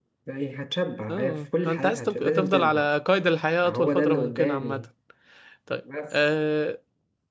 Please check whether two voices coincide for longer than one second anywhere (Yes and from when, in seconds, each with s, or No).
Yes, from 1.1 s